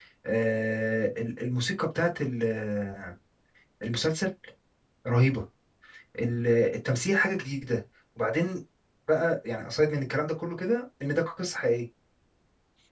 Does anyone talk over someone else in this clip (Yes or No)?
No